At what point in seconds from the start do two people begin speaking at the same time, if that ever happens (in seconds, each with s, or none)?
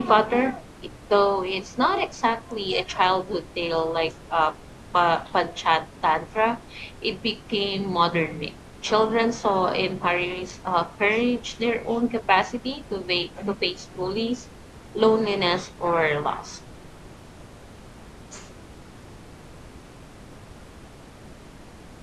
none